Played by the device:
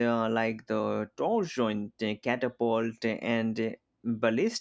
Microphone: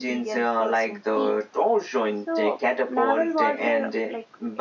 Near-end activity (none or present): present